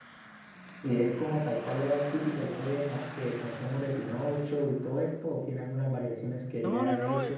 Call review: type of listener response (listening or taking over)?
taking over